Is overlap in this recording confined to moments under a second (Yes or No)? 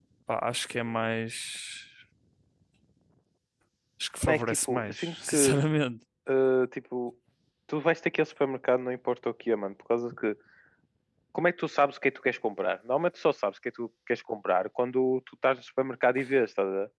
No